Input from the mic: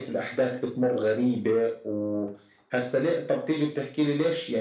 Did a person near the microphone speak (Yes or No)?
No